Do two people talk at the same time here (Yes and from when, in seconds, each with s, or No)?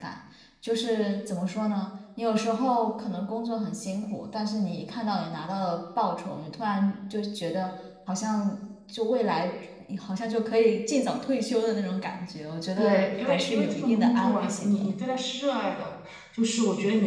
Yes, from 12.8 s